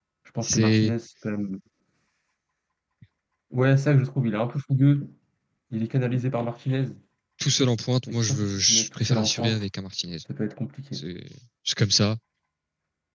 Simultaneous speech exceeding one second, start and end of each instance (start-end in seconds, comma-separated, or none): 8.1-9.6